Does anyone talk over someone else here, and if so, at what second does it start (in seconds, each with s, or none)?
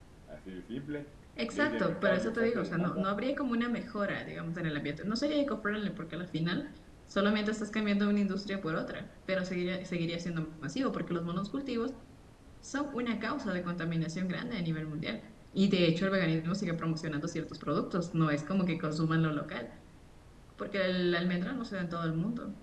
1.4 s